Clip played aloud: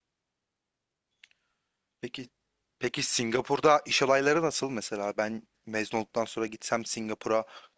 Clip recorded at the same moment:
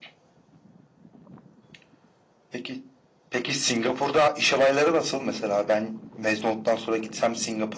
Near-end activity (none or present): none